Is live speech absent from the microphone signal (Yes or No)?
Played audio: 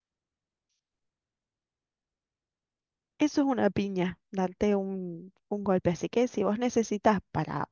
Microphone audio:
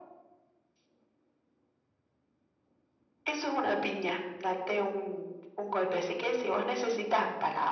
Yes